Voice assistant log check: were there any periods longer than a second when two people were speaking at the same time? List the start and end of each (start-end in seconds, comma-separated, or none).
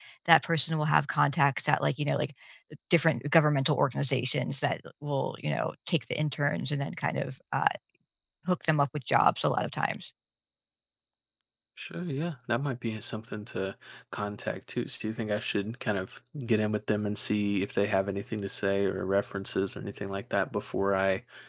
none